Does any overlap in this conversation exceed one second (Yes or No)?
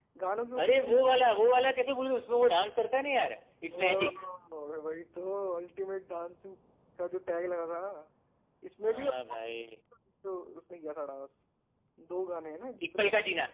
No